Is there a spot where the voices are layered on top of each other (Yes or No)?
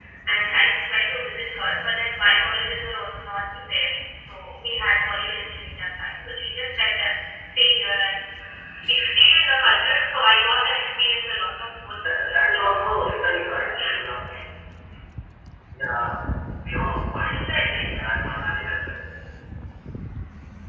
Yes